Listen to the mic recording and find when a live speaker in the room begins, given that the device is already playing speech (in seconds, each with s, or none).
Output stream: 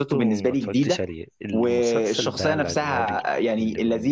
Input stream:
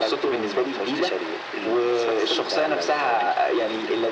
none